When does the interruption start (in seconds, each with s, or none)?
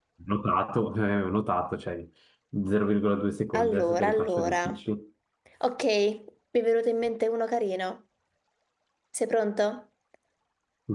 3.5 s